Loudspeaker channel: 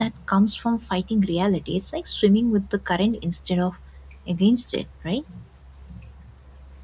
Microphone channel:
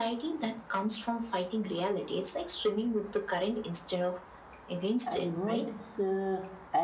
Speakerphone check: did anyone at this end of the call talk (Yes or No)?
Yes